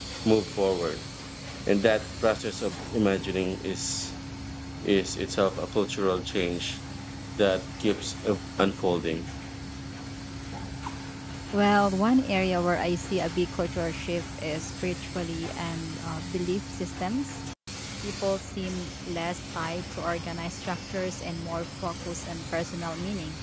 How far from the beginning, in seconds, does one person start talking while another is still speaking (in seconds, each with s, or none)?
none